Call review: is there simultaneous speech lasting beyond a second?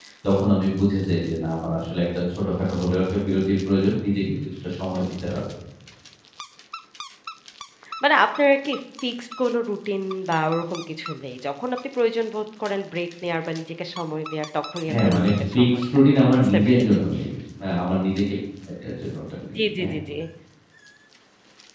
Yes, from 14.9 s

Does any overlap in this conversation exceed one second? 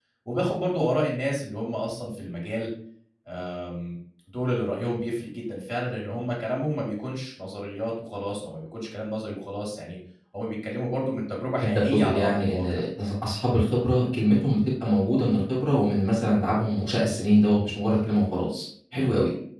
Yes, from 11.6 s

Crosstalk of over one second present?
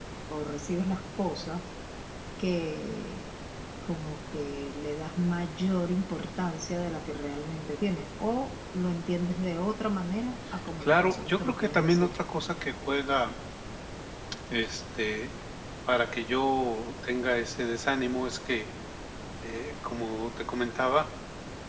Yes, from 10.8 s

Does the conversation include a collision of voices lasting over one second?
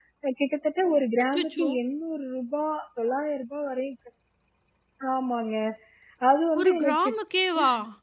No

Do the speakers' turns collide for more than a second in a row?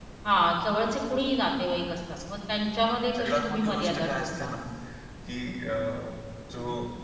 Yes, from 3.1 s

